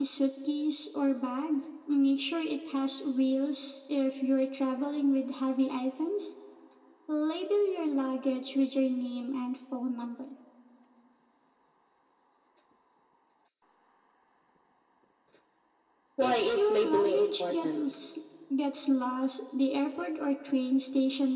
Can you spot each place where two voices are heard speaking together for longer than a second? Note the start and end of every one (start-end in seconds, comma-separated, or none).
16.2-17.8